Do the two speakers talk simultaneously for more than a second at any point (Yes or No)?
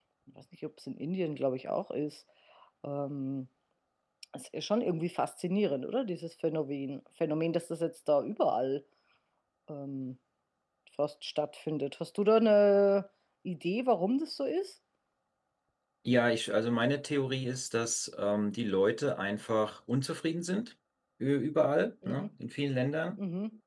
No